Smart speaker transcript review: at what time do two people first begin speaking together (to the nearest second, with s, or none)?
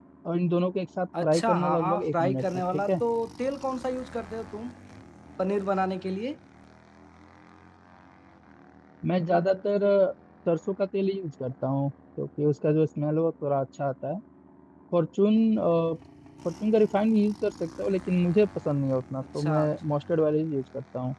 1 s